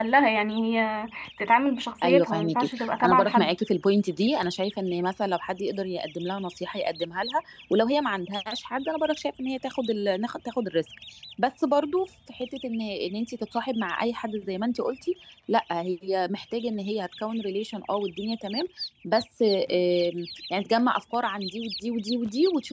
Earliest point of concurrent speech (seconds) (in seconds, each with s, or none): 2.0 s